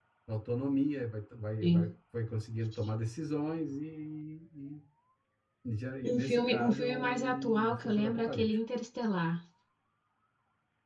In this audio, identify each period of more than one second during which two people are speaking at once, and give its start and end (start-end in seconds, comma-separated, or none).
6.0-8.6